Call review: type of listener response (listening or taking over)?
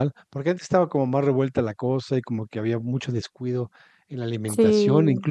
listening